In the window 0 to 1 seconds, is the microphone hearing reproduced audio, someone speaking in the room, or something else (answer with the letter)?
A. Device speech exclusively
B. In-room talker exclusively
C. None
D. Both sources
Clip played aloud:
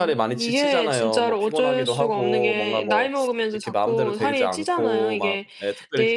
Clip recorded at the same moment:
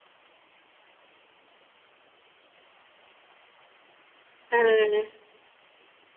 C